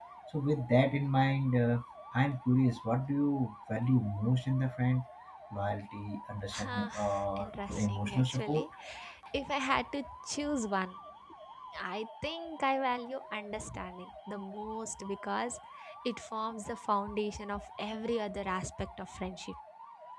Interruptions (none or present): present